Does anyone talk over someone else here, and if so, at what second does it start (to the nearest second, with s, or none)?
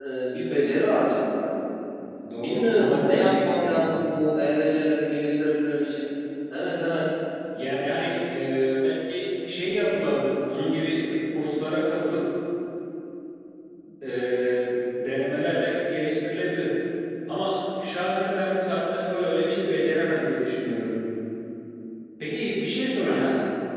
2 s